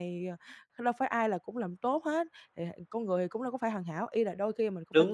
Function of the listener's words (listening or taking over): listening